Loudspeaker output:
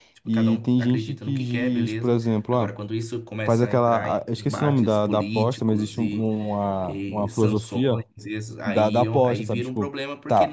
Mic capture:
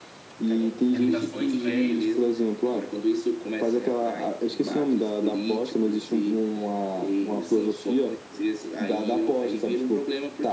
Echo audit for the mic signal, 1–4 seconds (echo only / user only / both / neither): both